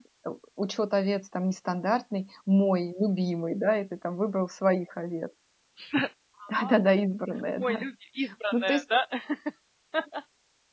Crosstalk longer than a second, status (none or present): none